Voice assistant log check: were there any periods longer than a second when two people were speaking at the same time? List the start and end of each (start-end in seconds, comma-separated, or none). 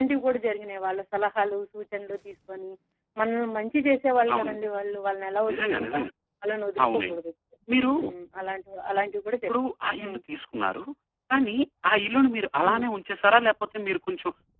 none